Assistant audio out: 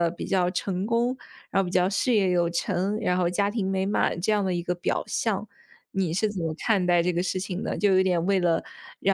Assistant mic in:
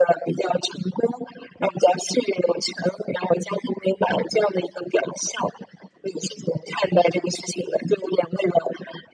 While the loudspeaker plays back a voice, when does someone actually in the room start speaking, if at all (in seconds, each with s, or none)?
none